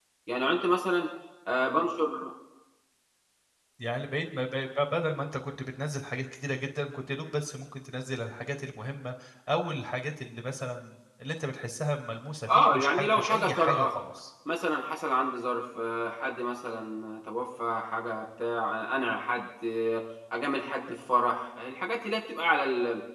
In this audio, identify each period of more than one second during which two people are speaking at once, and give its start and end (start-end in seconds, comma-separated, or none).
12.6-13.9